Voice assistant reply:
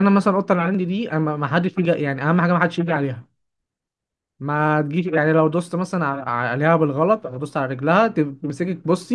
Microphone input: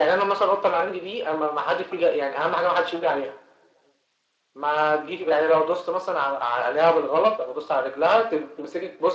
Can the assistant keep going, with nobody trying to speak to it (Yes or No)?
Yes